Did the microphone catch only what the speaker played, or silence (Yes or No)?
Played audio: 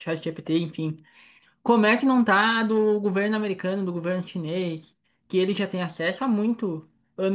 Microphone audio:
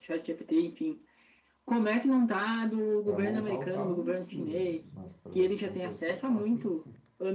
No